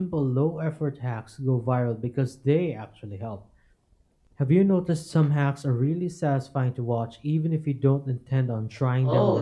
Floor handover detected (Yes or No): Yes